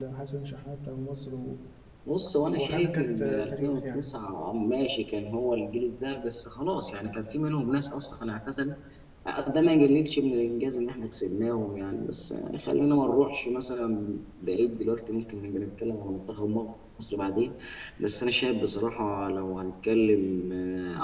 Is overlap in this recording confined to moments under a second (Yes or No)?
No